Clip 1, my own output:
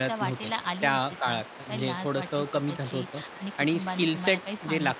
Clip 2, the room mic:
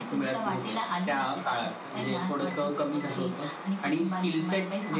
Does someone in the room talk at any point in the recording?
No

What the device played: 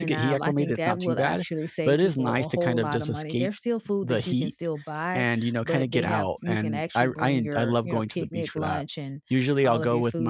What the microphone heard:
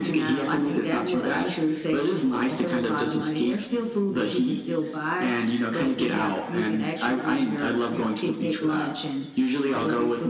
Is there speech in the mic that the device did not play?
No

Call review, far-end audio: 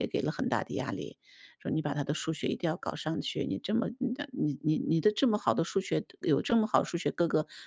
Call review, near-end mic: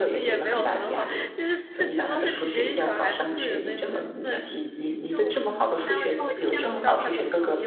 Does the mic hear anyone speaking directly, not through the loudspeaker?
Yes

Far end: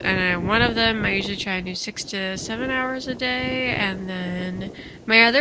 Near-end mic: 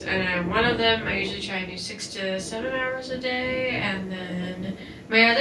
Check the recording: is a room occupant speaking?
No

